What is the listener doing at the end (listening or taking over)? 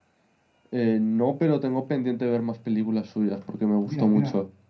taking over